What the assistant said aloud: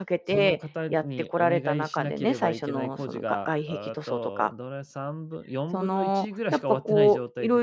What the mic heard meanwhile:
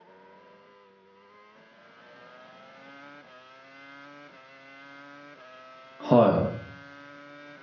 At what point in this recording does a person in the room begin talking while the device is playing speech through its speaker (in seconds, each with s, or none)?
6.0 s